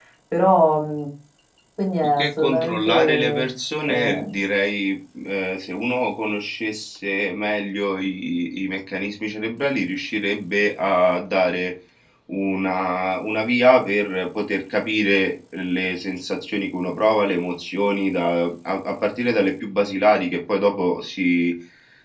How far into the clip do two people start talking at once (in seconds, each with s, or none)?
2.2 s